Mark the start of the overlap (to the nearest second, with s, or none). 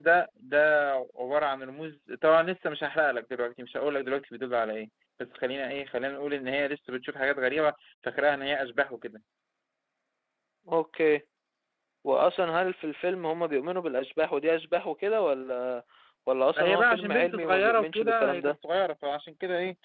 17 s